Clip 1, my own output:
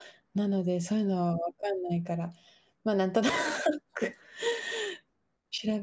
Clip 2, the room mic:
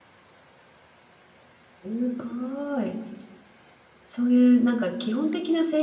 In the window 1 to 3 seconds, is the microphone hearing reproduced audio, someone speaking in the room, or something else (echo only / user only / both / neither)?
user only